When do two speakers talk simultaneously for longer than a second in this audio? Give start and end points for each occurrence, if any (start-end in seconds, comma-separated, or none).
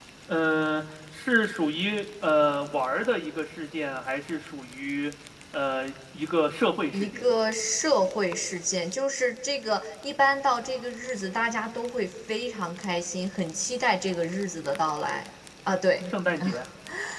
none